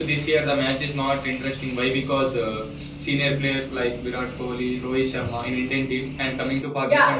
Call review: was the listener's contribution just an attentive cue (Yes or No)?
No